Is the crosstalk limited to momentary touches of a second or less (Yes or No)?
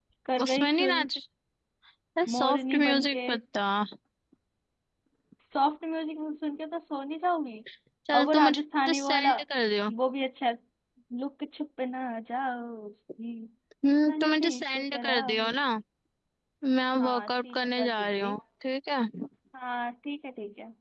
No